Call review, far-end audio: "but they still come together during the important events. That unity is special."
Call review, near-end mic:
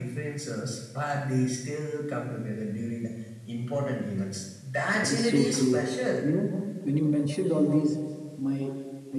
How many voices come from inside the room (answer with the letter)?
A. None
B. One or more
B